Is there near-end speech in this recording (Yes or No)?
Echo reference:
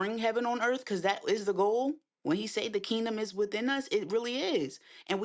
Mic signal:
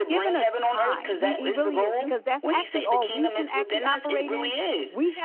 Yes